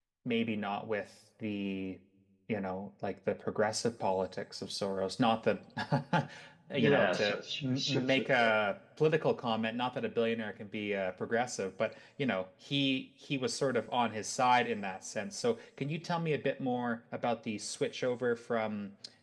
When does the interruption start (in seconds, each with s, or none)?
6.8 s